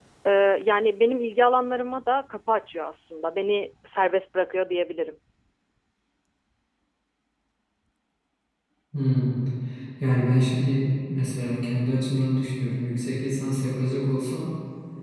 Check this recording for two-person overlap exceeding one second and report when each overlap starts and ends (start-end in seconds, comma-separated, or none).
none